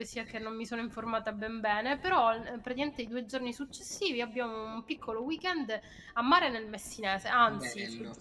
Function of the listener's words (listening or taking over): listening